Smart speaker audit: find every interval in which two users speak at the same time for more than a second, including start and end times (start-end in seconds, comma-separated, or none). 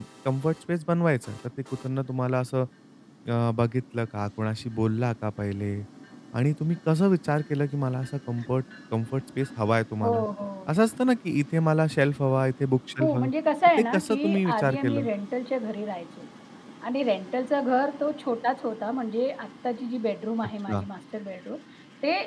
13.8-15.1